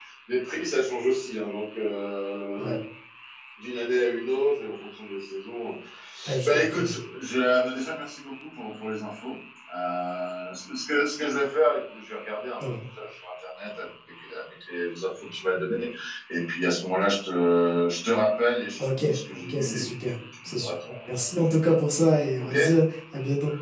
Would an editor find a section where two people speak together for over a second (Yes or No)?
Yes